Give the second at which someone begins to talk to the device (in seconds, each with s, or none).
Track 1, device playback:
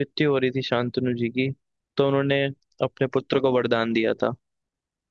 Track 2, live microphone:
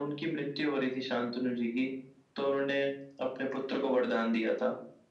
none